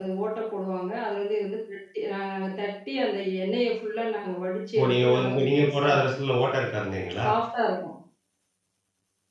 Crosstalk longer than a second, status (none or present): present